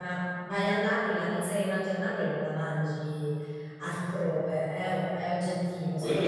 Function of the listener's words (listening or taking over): listening